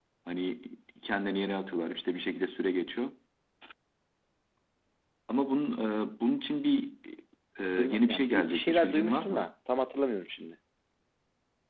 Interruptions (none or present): present